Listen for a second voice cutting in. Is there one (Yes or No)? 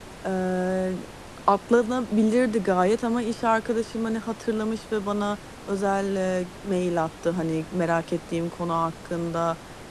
No